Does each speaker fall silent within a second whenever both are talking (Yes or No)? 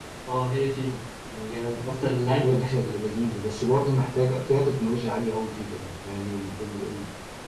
Yes